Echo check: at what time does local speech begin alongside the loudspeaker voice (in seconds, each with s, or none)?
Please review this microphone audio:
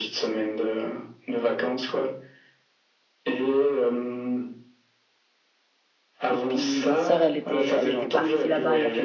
6.3 s